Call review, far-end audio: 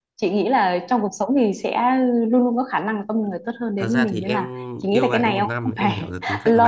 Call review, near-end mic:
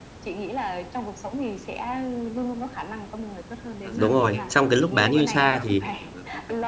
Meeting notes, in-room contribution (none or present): present